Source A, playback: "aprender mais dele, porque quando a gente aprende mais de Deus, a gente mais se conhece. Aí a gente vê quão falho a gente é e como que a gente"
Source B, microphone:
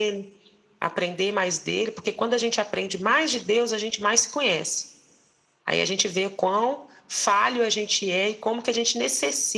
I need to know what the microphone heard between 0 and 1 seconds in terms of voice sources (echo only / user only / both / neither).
echo only